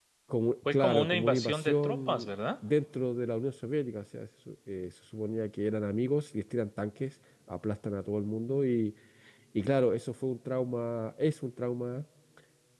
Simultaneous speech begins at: 0.7 s

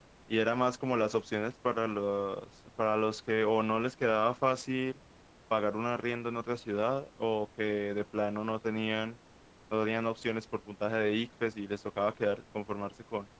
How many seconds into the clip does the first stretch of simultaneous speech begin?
none

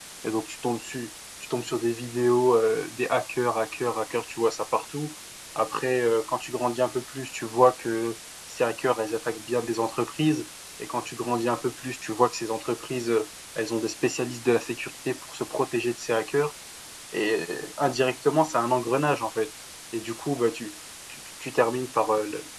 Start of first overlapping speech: none

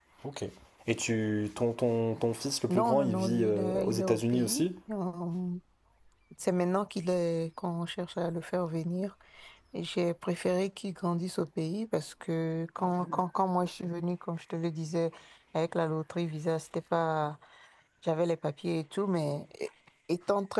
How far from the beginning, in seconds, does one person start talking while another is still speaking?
2.7 s

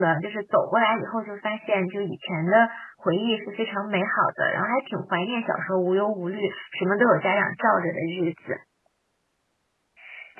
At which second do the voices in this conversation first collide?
none

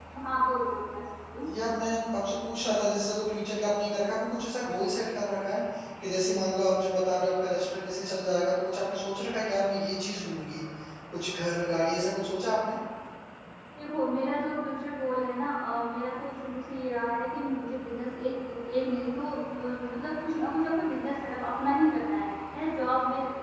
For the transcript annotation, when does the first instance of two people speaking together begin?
none

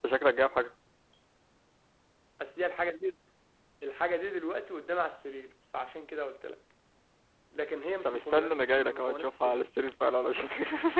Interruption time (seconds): 8.0 s

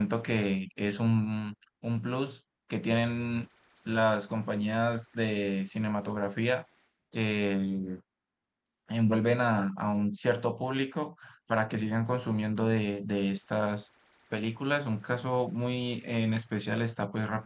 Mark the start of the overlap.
none

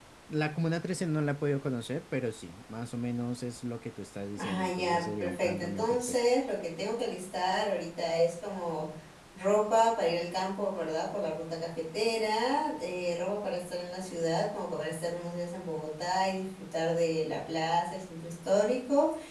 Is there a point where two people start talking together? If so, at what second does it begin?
4.4 s

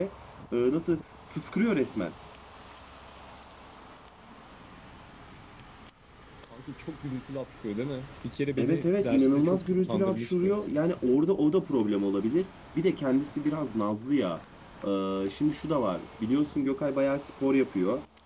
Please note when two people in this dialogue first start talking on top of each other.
8.6 s

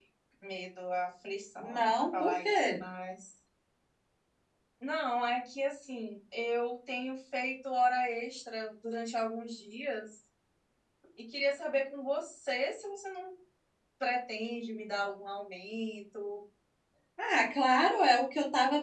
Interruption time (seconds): 1.6 s

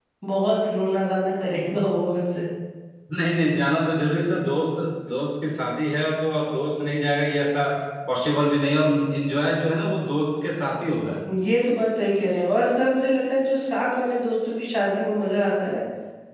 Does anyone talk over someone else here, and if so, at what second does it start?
none

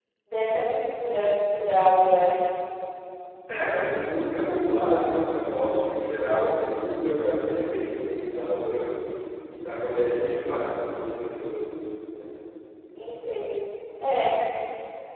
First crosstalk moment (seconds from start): none

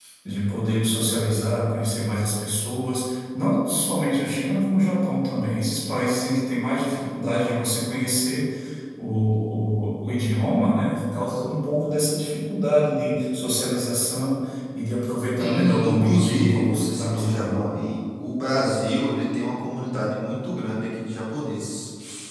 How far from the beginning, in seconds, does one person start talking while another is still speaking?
15.4 s

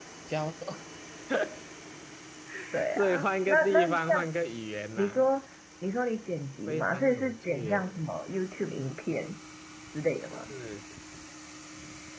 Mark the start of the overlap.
3.0 s

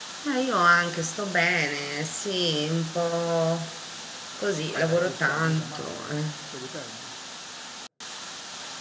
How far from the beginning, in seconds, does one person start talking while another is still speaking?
4.7 s

